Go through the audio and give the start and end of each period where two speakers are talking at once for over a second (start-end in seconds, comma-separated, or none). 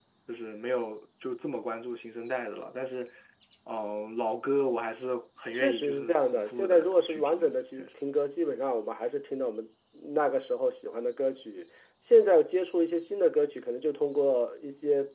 5.5-7.5